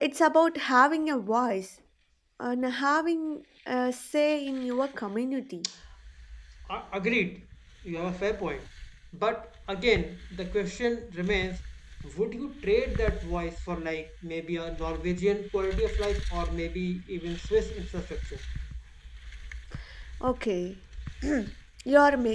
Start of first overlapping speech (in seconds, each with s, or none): none